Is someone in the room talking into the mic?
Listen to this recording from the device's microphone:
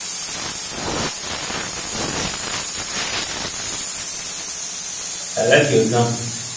Yes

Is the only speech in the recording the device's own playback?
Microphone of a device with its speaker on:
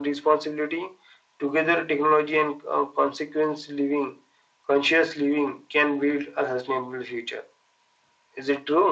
Yes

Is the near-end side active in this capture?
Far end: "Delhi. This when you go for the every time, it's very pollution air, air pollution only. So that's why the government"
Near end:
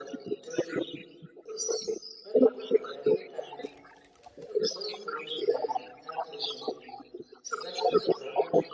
No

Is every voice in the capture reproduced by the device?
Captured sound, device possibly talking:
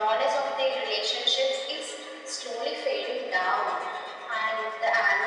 Yes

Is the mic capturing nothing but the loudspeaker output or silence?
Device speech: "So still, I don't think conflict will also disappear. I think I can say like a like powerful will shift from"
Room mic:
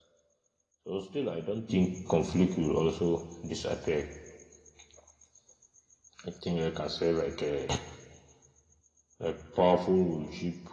Yes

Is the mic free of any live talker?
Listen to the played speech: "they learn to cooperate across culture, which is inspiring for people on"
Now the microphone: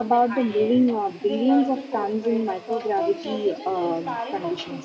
No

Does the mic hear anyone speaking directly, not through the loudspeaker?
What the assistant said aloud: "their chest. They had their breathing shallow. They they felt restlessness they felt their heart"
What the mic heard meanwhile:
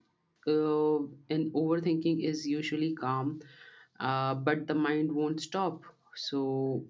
Yes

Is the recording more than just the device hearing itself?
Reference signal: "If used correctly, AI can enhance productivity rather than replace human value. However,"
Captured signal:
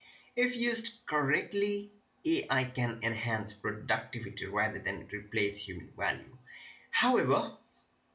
No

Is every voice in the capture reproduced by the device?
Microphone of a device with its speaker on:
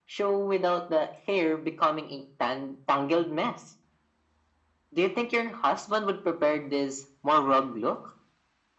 Yes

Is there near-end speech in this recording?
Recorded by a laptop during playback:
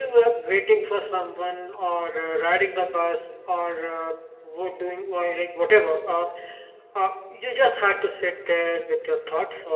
No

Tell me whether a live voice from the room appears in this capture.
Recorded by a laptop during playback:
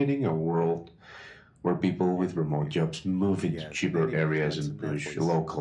Yes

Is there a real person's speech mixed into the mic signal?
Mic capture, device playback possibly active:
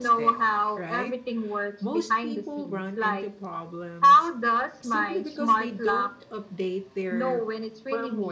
Yes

